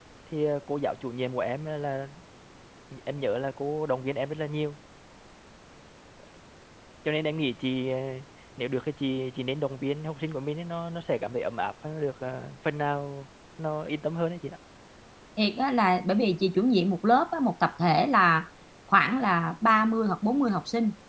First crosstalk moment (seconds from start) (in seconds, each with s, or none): none